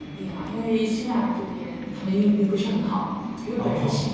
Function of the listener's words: listening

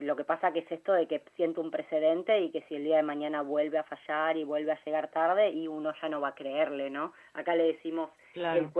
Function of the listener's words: listening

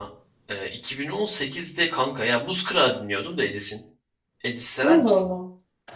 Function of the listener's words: taking over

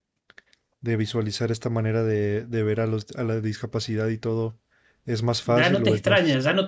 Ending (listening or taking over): taking over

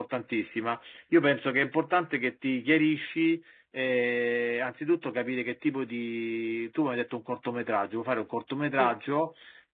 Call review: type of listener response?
listening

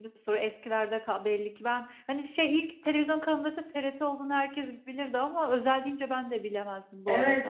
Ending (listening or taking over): taking over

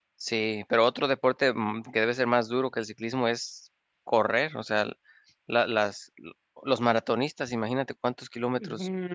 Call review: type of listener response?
taking over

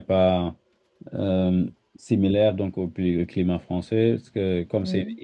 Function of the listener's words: listening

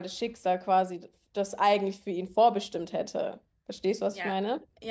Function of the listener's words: taking over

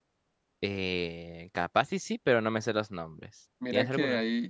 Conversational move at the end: taking over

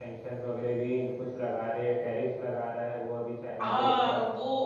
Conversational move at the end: taking over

